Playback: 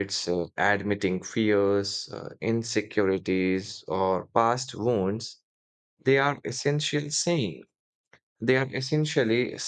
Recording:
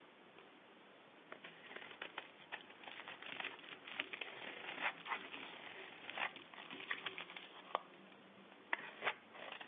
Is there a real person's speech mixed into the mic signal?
No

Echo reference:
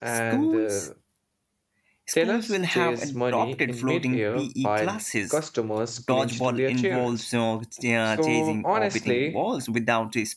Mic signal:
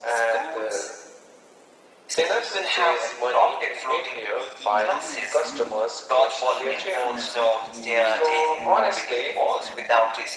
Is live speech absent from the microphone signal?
No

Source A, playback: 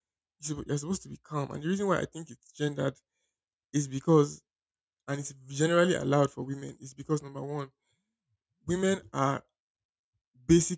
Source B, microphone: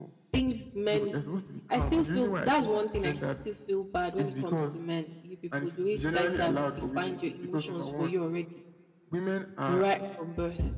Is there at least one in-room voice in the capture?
Yes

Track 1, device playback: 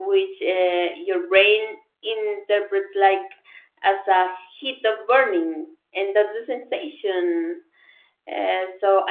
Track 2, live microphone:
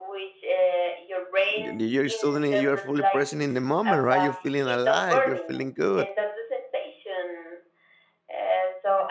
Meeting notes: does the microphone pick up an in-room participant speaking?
Yes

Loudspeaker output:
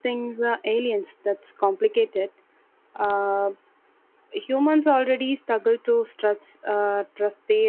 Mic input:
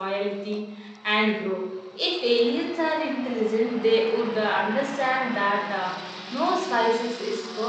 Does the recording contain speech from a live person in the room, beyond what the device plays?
Yes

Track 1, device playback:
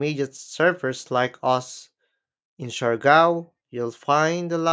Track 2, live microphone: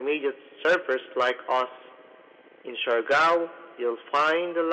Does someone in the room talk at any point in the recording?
No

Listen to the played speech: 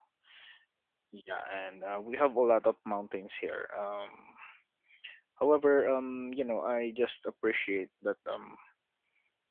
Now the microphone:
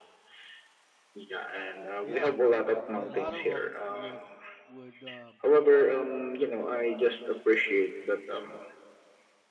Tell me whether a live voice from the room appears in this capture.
Yes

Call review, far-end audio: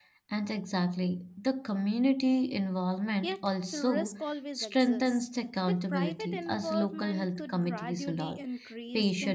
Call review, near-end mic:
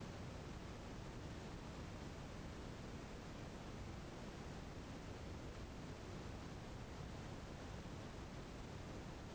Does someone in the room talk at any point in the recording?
No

